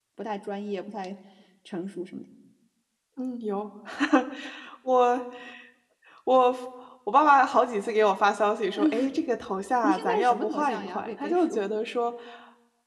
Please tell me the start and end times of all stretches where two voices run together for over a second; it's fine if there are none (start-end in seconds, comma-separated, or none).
9.8-11.6